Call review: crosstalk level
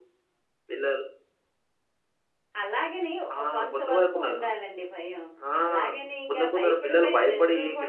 present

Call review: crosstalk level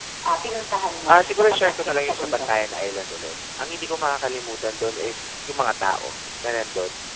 present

